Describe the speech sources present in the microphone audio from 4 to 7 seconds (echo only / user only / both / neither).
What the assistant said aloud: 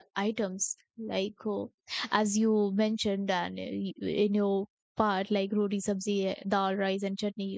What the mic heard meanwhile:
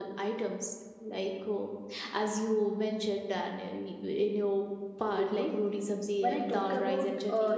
both